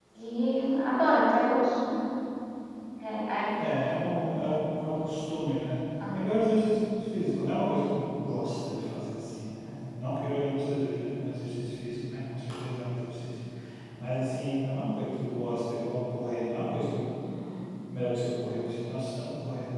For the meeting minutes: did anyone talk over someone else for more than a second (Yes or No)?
No